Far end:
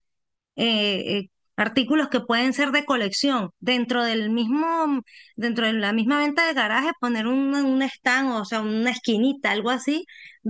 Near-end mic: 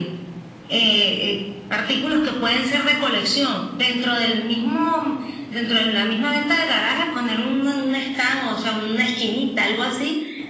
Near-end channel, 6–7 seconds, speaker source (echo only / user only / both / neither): echo only